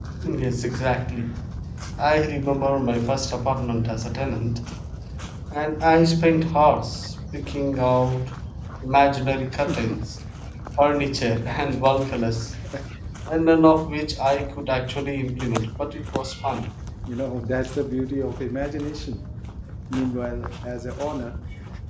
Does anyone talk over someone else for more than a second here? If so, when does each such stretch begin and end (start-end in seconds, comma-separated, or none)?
none